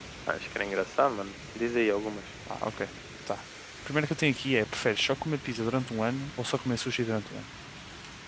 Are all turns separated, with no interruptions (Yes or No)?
Yes